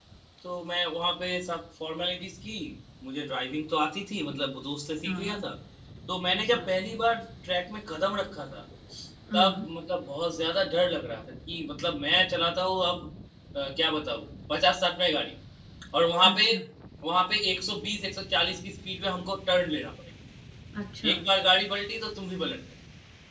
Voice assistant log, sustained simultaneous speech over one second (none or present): none